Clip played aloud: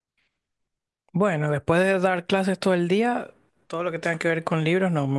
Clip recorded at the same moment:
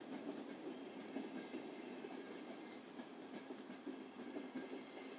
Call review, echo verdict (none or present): none